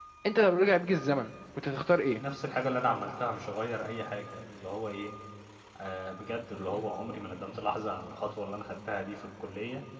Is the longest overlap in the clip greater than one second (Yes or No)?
No